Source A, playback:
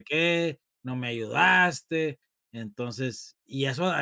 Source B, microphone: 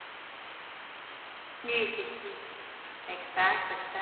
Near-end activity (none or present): present